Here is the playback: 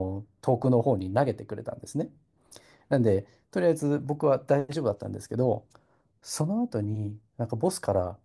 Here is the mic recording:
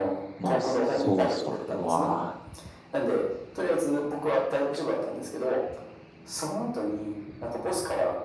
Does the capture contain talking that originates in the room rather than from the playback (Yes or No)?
Yes